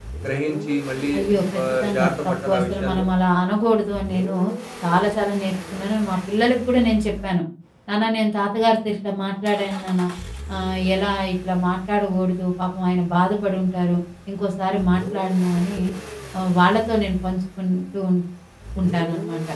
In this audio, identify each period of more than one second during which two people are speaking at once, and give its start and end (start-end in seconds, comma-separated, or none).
1.2-3.1